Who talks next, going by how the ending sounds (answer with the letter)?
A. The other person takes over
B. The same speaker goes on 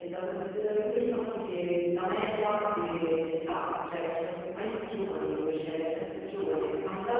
B